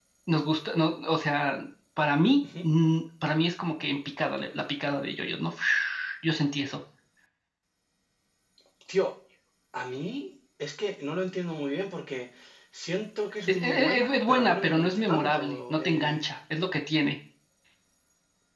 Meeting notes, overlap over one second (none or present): present